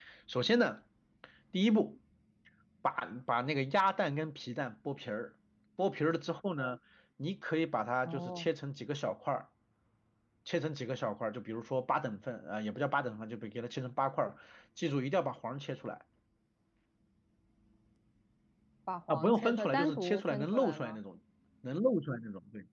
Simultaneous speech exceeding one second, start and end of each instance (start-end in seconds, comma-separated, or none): 19.1-21.0